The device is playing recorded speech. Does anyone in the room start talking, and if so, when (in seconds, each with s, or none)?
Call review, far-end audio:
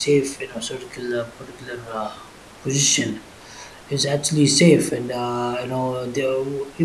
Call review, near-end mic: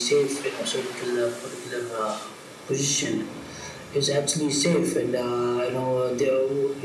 none